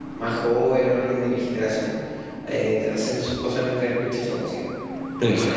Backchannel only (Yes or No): Yes